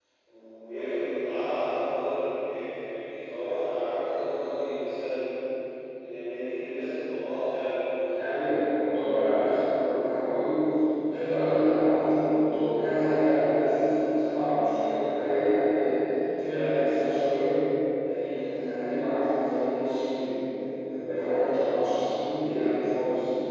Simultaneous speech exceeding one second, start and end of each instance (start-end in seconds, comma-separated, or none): none